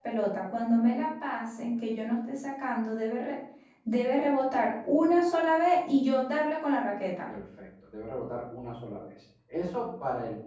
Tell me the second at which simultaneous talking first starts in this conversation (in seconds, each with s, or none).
none